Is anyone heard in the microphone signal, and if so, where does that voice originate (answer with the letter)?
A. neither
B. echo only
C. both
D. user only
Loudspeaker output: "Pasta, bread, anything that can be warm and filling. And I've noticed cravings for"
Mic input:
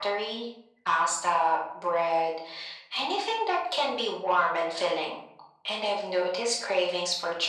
B